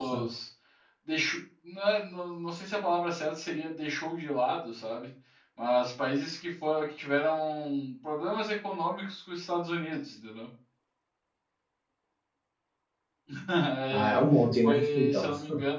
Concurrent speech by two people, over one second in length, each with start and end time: 13.9-15.3

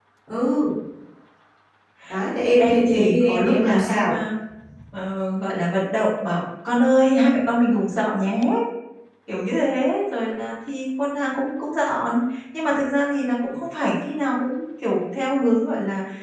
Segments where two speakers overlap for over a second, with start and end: 2.6-4.1

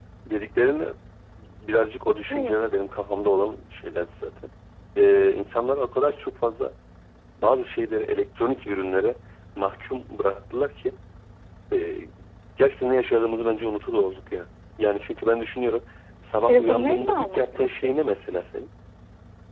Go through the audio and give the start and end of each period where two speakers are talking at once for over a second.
16.5-17.9

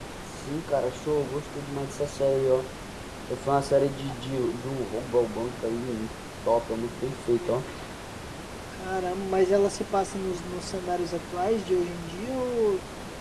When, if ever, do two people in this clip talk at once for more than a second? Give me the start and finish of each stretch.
none

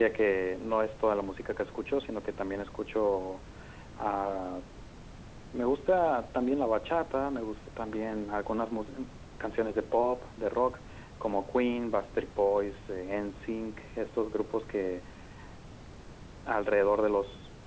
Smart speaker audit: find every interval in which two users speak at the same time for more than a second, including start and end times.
none

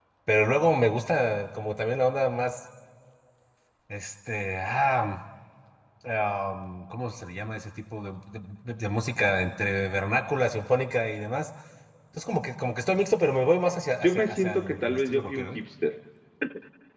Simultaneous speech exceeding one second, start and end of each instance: 14.0-15.6

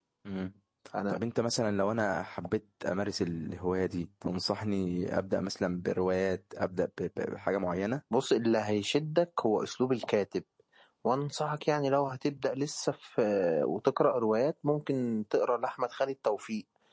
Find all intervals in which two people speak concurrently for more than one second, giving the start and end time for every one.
none

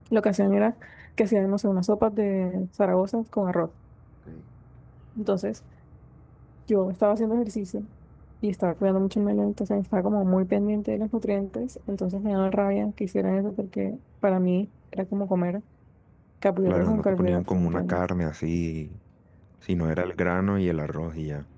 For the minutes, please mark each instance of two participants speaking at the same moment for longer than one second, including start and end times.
16.7-18.0

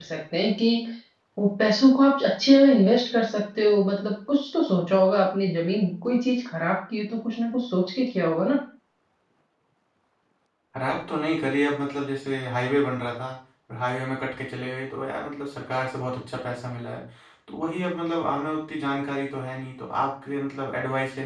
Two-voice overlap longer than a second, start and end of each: none

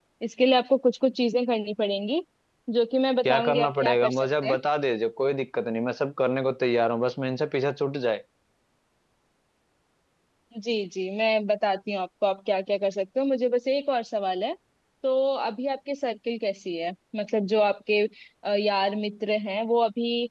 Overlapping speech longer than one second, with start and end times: 3.2-4.6

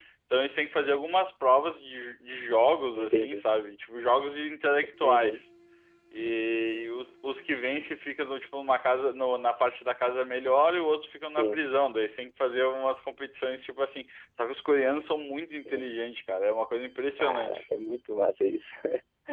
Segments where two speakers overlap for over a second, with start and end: none

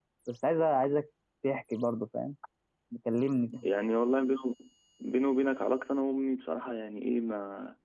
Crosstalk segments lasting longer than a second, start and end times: none

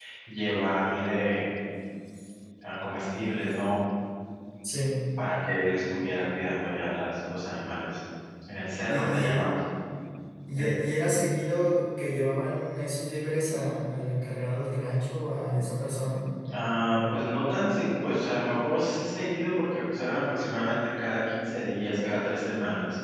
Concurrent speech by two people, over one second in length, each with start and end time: none

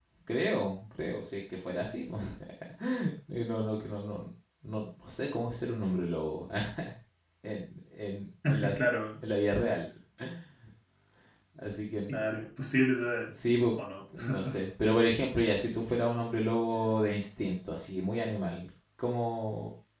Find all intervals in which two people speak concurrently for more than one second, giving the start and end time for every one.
none

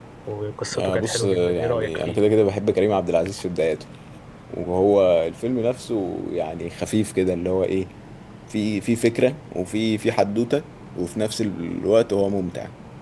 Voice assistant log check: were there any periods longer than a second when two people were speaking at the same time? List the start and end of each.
0.8-2.2

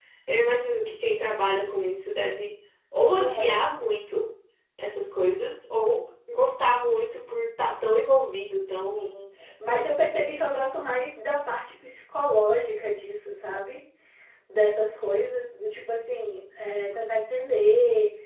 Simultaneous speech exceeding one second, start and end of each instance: none

